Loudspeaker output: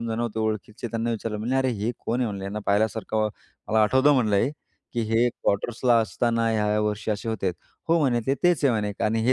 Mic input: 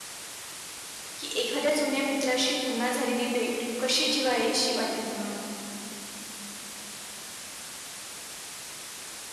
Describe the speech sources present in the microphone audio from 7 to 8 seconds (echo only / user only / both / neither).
neither